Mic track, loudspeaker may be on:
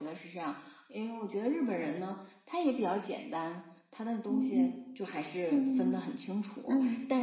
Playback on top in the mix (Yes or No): No